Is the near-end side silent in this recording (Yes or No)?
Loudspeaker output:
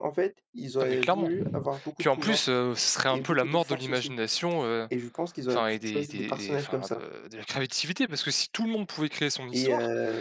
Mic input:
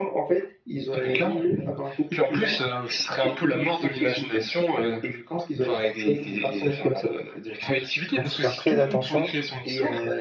No